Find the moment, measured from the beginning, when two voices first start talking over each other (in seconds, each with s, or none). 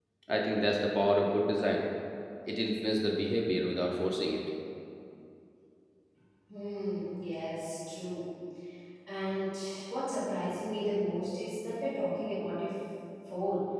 none